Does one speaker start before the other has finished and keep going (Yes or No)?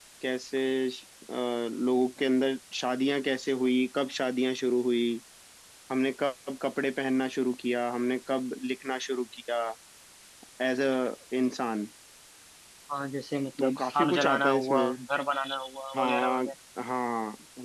Yes